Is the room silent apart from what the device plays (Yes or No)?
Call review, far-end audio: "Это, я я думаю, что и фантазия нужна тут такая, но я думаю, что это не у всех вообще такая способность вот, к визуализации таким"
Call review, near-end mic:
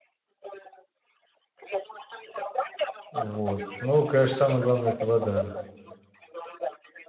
No